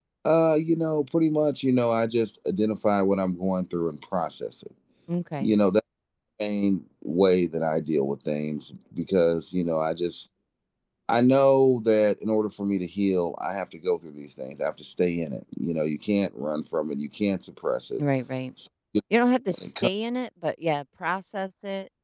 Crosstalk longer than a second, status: none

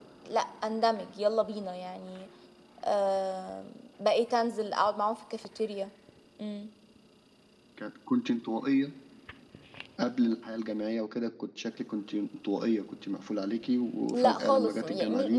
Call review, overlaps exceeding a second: present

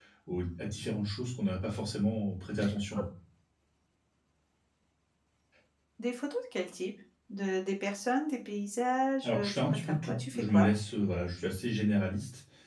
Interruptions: present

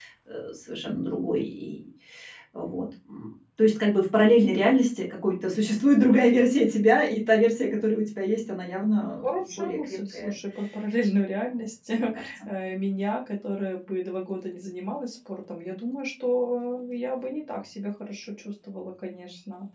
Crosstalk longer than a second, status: present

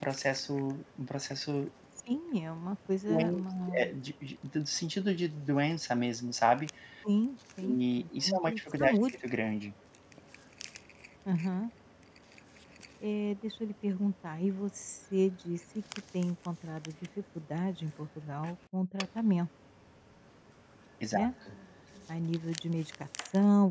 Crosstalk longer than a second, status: present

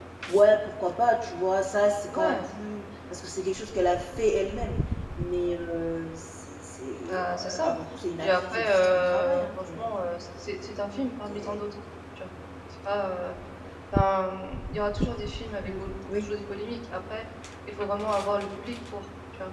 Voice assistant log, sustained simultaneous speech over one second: present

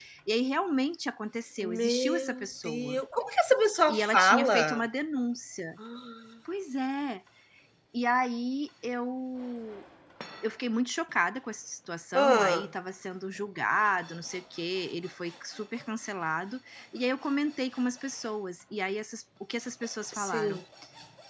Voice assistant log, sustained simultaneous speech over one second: present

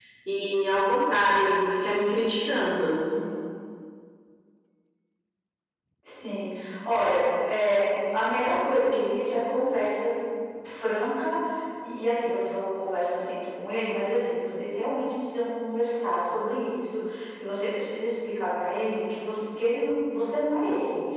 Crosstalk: none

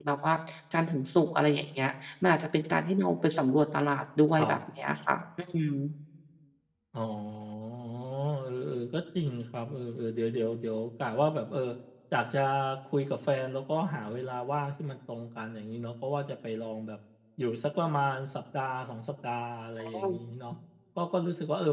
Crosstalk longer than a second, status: none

